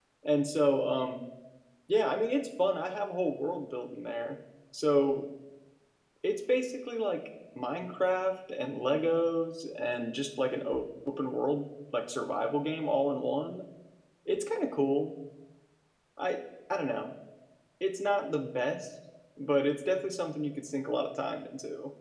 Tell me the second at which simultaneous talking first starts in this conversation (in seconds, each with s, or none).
none